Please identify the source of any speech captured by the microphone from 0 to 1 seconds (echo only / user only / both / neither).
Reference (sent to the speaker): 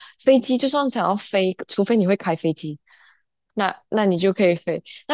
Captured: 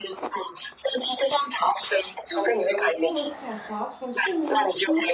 echo only